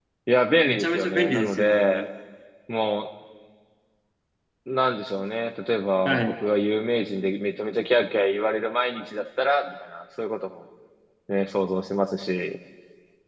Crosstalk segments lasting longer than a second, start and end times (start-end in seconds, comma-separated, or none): 0.7-2.0